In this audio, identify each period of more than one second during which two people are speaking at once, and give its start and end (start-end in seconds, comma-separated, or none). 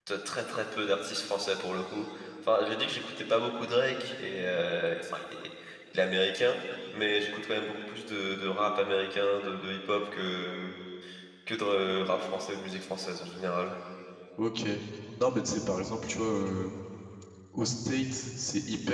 none